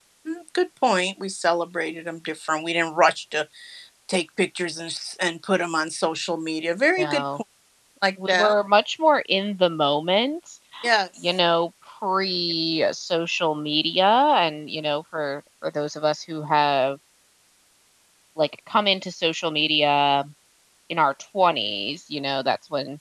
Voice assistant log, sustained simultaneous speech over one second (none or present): none